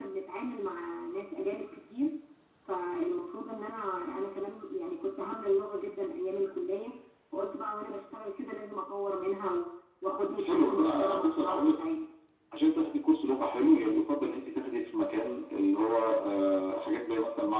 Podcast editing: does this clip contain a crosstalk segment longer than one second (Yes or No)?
Yes